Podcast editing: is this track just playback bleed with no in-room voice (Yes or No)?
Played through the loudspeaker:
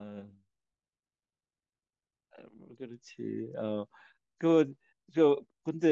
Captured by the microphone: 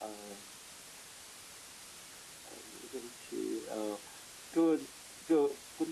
Yes